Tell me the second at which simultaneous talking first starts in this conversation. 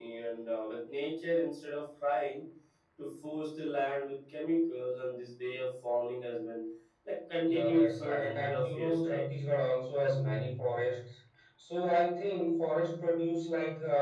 7.5 s

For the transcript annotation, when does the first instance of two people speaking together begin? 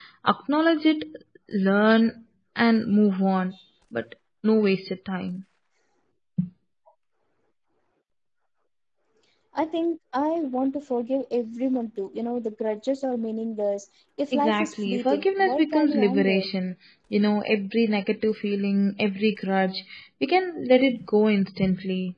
14.3 s

